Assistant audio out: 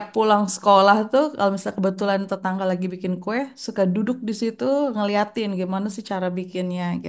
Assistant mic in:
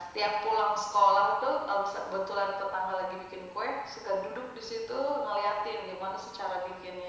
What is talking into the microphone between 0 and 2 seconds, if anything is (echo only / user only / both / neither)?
echo only